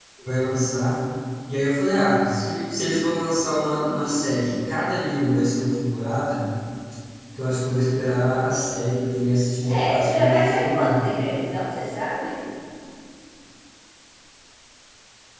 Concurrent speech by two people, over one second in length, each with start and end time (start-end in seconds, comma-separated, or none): 9.6-11.1